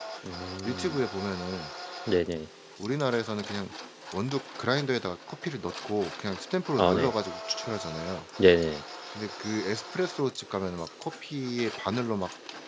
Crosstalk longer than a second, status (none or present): none